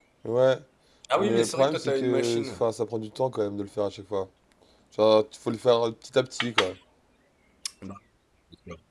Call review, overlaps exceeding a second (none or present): present